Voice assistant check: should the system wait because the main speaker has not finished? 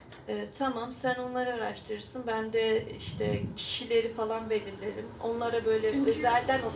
Yes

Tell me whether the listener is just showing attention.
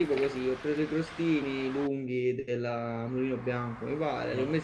Yes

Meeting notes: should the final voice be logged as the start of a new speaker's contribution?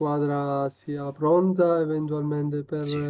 Yes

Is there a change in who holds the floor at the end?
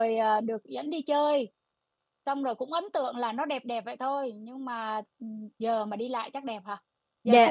Yes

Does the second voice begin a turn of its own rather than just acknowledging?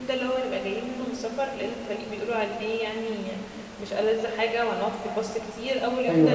No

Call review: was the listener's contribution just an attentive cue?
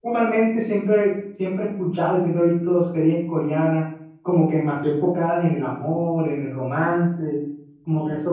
Yes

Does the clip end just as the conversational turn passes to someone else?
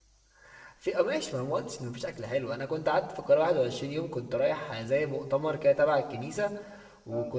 No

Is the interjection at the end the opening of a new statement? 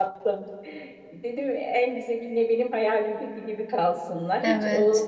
No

